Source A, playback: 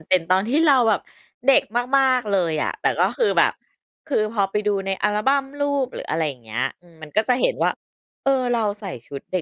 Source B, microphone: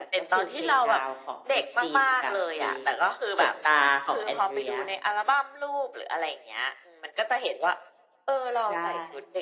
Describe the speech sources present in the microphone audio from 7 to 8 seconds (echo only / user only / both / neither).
echo only